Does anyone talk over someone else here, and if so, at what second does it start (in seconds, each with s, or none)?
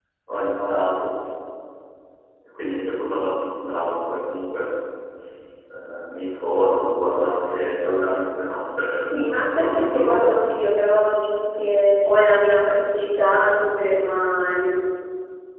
9.1 s